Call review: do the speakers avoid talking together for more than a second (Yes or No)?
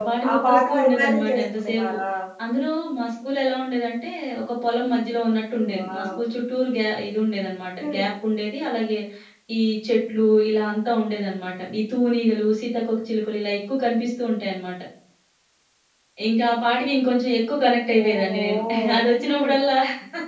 No